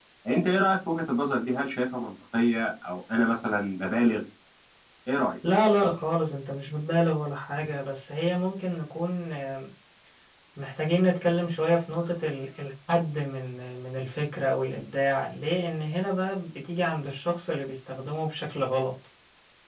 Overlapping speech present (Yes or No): No